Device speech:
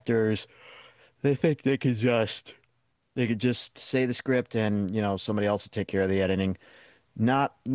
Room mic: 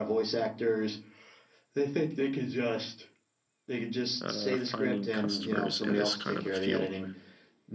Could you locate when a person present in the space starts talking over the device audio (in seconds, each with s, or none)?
4.2 s